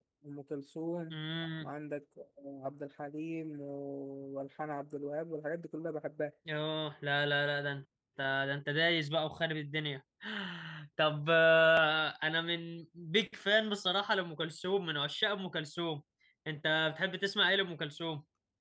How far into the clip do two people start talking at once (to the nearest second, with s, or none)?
none